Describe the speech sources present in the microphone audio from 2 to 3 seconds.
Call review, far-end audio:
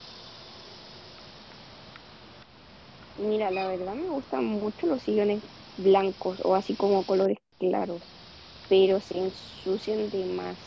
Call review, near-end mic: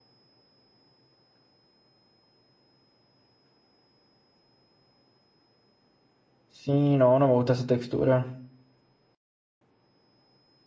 neither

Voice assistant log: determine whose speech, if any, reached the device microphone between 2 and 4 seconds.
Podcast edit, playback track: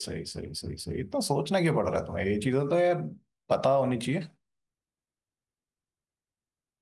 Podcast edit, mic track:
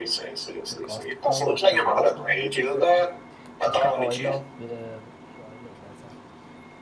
both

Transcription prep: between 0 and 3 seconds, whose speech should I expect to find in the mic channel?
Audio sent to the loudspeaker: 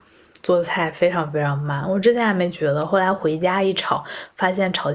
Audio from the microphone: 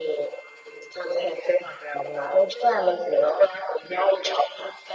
echo only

